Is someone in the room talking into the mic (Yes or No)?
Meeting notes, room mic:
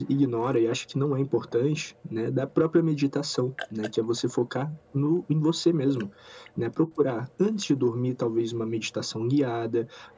No